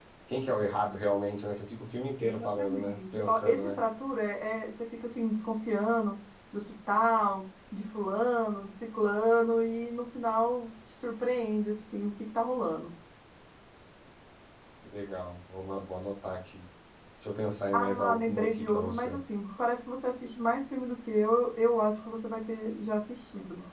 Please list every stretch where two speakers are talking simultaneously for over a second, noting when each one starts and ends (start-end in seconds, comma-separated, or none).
2.2-3.8, 17.7-19.2